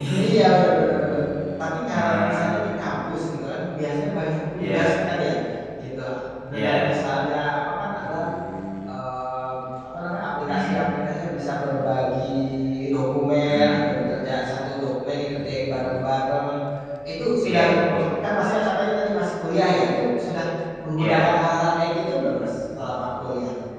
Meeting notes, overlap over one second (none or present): none